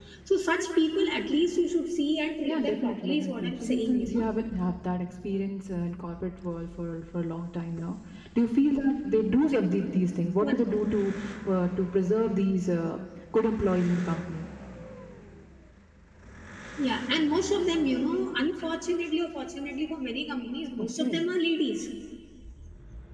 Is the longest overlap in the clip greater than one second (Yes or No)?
Yes